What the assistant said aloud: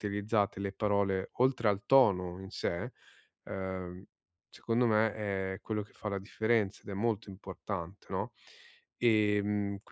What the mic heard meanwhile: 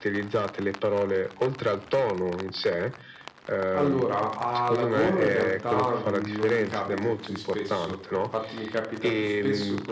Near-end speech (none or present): present